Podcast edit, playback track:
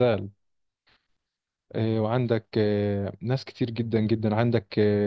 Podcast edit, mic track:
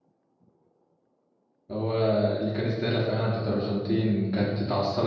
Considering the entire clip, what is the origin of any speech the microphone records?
user only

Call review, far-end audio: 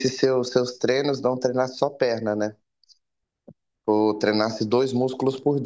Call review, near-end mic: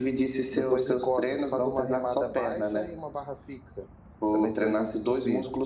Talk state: both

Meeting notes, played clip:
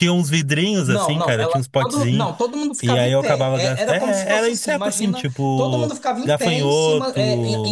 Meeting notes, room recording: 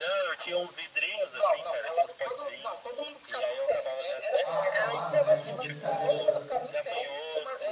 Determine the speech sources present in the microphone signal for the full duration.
both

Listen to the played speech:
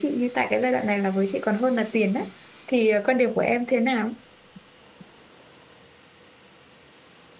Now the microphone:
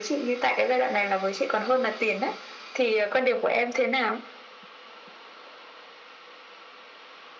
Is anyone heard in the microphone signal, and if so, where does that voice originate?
echo only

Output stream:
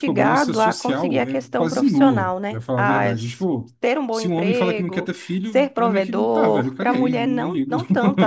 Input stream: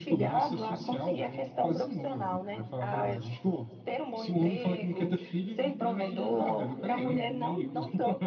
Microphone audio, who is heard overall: echo only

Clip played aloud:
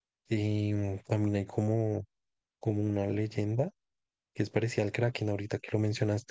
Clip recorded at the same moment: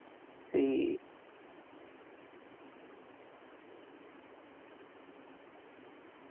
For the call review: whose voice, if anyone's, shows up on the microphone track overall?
user only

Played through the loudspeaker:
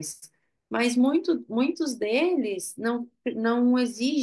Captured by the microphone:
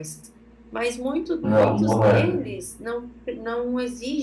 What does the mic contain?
both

